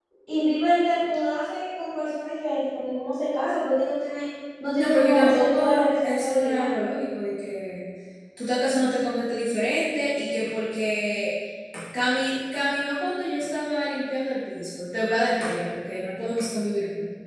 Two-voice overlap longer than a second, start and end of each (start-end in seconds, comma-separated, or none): 4.8-6.7